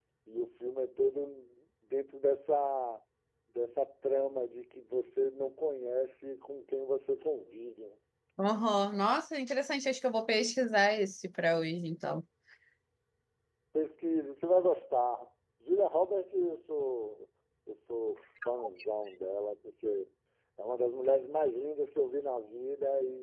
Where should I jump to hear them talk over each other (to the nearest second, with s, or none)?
none